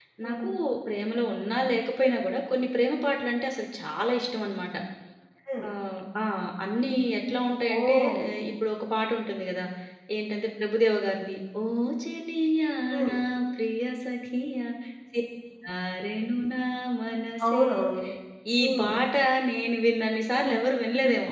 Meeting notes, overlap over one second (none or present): none